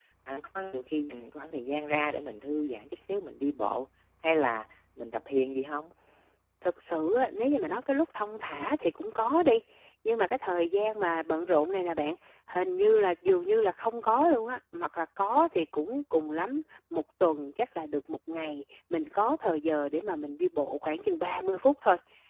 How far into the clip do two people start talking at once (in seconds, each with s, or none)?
none